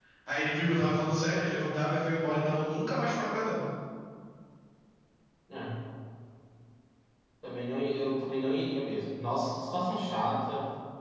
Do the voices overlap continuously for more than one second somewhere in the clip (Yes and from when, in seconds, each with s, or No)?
No